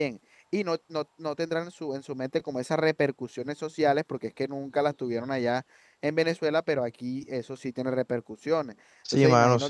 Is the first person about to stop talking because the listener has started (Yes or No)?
Yes